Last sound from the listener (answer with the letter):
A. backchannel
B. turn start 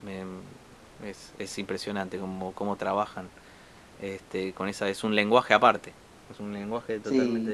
B